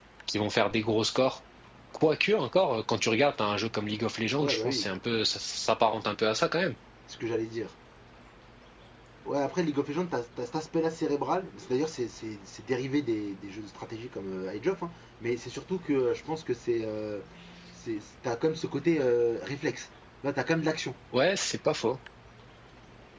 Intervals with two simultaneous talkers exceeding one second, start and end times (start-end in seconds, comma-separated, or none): none